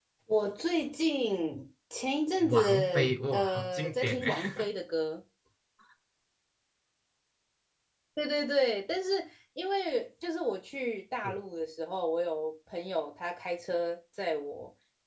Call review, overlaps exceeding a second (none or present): present